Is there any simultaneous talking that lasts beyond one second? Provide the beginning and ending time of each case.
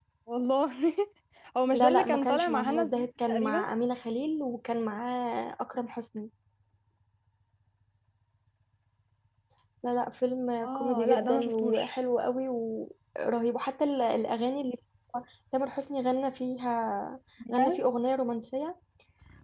1.7-3.6, 10.6-11.9

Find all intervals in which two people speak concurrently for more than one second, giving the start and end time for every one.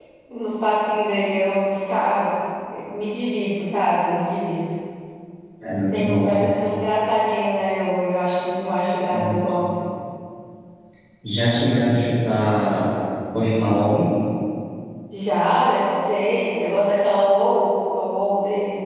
none

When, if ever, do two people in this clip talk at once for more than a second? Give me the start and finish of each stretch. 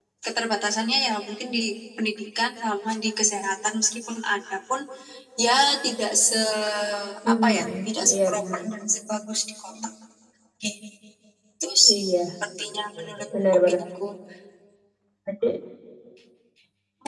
7.3-8.6

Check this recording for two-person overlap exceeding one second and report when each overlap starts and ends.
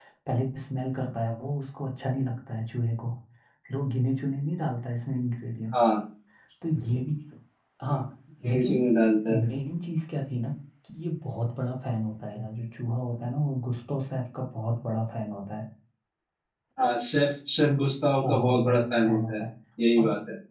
18.2-19.4

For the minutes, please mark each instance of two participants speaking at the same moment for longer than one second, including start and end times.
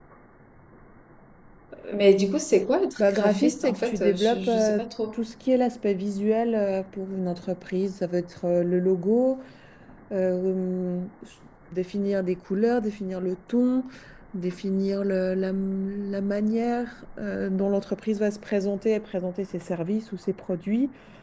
3.0-4.9

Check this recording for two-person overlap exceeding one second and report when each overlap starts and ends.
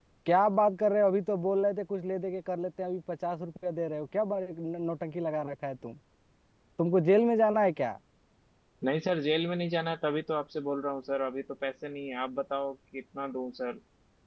none

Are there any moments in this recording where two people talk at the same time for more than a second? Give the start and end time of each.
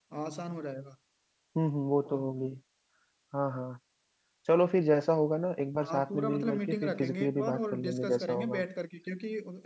5.8-8.6

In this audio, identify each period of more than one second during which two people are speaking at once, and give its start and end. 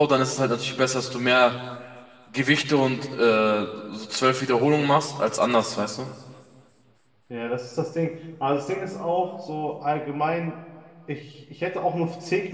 none

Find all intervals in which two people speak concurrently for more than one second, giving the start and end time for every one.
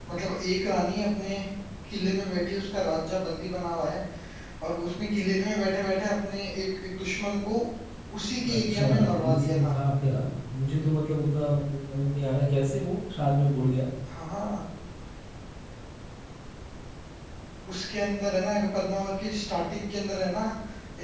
8.5-9.7

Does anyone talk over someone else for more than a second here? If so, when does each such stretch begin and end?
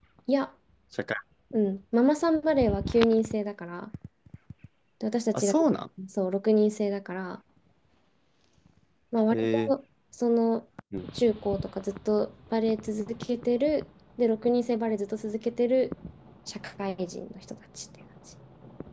none

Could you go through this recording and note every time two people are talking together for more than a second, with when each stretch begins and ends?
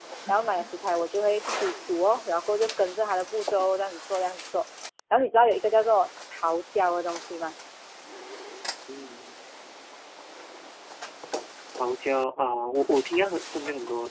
none

